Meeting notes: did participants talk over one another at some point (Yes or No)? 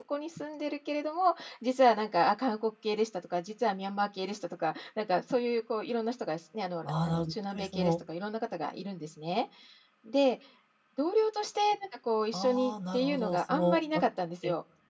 Yes